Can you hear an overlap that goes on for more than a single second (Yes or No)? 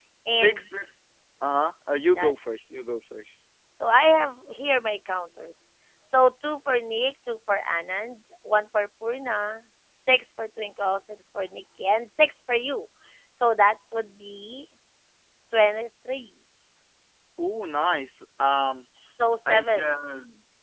No